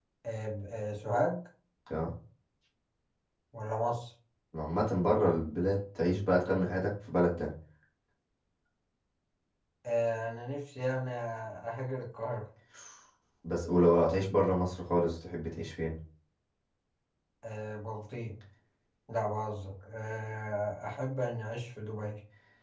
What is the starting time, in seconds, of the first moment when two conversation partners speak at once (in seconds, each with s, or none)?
none